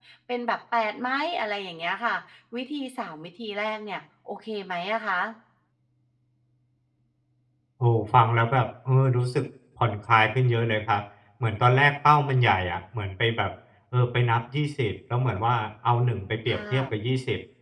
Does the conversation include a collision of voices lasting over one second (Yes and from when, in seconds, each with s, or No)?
No